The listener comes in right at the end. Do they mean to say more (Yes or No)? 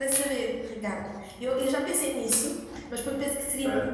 No